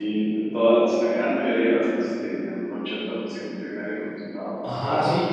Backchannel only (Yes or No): No